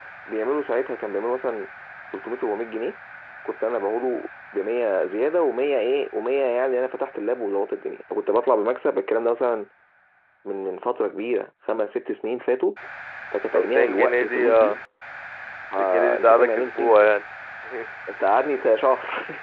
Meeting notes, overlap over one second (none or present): present